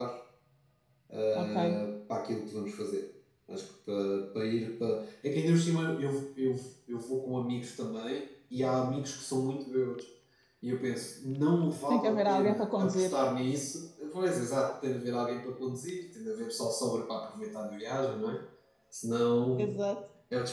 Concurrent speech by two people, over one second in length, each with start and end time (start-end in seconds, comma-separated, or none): 11.9-13.1